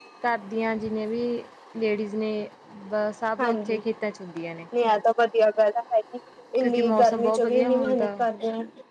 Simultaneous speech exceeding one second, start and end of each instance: 6.6-8.1

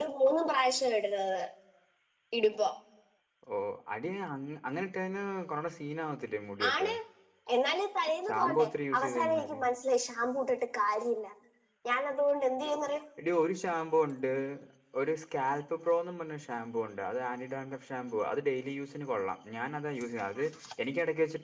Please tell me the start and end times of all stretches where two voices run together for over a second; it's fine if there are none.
8.3-9.6

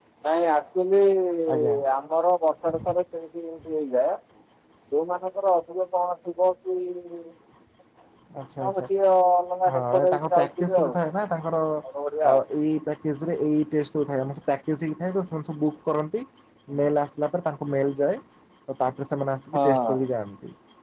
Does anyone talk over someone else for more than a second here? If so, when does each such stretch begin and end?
9.7-11.0

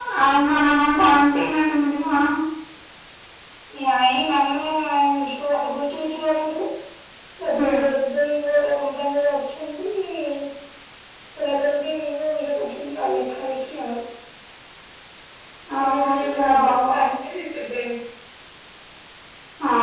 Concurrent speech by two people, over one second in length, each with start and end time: 15.8-17.0

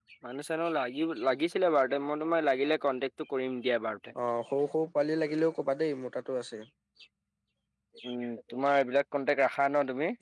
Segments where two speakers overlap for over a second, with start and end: none

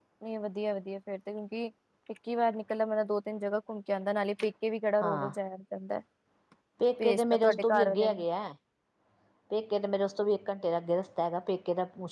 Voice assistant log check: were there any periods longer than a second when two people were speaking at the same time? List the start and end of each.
7.0-8.2

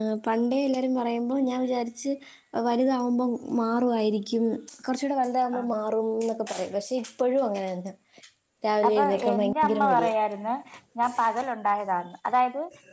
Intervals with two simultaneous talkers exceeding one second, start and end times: 8.9-10.1

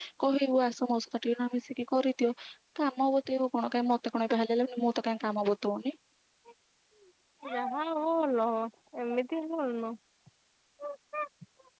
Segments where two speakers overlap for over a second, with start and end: none

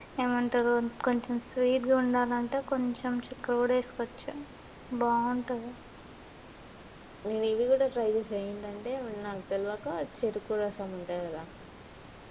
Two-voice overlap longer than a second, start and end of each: none

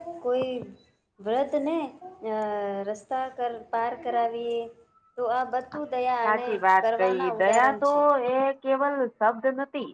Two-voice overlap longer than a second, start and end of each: 6.2-7.9

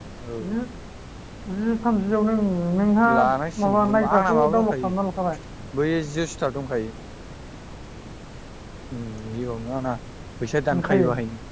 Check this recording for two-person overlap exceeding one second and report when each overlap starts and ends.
3.6-4.9

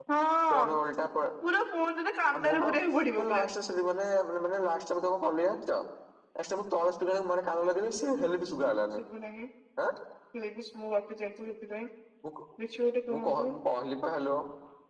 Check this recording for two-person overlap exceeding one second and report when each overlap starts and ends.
none

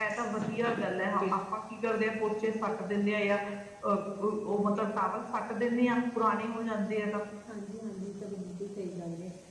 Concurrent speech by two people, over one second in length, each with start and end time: none

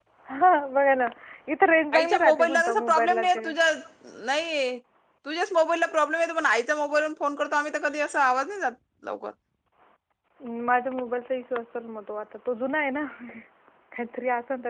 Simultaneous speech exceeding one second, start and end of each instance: 1.9-3.5

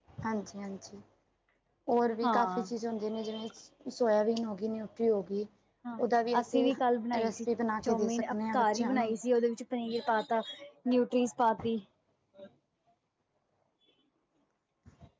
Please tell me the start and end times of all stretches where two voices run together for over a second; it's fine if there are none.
7.8-9.1

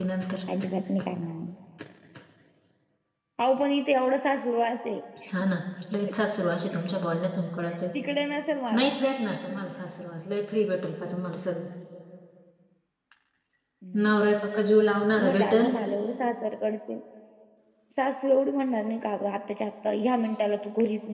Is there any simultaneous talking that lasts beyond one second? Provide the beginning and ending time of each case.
none

